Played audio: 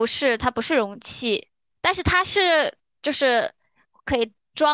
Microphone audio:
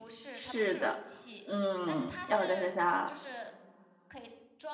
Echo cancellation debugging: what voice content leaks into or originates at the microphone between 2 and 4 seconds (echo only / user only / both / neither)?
both